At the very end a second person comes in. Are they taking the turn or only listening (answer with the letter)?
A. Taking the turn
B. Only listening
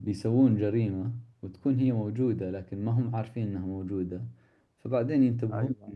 B